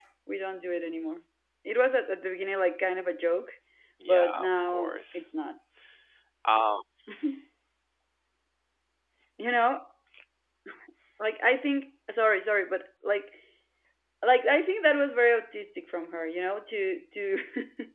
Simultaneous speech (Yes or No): Yes